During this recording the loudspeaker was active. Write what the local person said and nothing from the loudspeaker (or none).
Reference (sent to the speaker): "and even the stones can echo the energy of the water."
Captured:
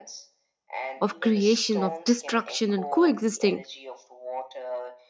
of creation, of destruction and coexisting,